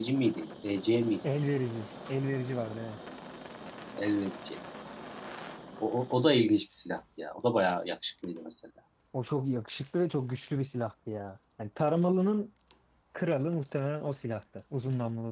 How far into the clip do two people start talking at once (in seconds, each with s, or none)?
none